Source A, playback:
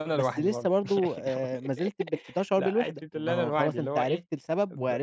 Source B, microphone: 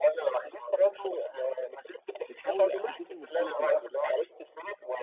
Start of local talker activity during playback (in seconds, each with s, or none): 2.3 s